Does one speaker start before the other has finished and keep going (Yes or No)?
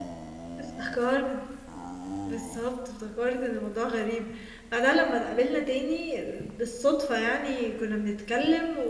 No